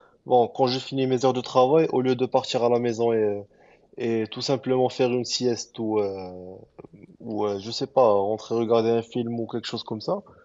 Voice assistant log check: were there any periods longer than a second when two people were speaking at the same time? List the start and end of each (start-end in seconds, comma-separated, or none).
none